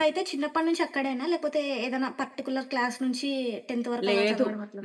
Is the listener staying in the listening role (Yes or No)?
No